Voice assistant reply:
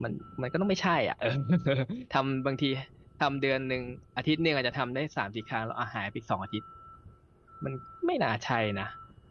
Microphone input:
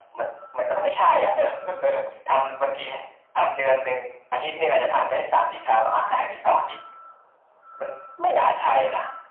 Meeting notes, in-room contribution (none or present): none